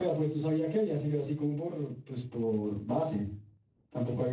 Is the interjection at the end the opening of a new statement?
No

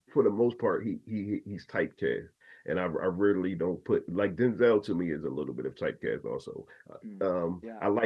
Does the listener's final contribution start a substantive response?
No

